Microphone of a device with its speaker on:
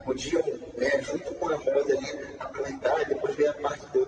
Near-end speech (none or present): none